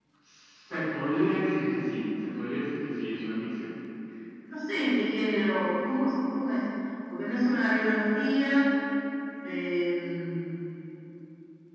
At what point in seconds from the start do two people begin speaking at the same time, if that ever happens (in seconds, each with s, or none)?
none